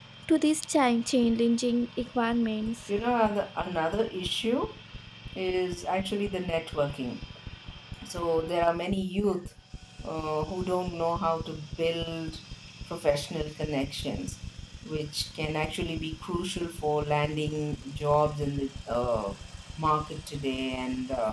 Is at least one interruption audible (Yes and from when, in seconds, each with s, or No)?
No